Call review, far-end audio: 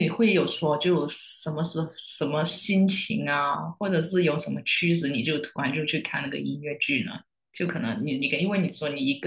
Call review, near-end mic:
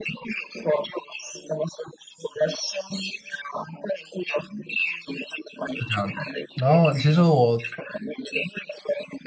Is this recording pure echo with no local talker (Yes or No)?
No